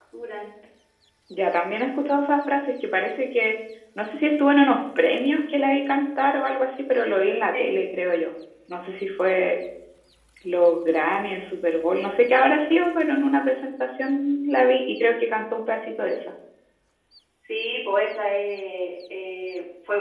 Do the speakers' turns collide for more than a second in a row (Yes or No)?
No